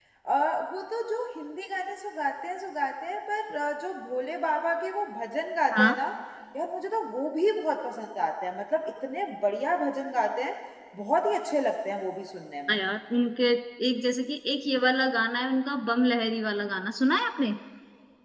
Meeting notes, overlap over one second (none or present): none